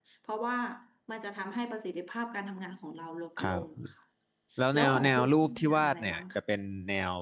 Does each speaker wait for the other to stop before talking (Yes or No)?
No